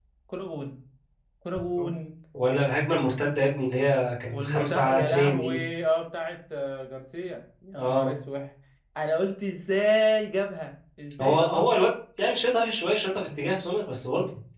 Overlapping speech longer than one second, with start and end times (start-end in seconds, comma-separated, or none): 4.3-5.6